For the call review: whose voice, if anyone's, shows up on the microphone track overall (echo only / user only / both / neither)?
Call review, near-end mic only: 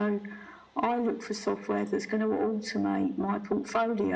echo only